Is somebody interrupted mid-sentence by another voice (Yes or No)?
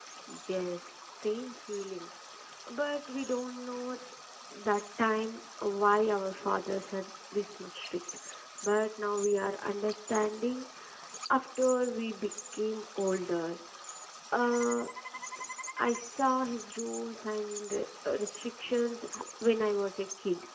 No